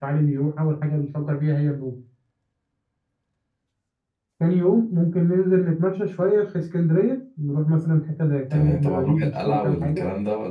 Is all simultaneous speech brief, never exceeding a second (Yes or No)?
No